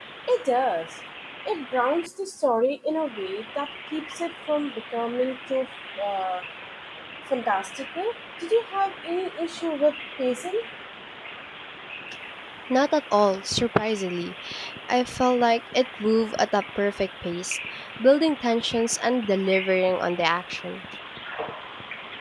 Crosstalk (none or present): none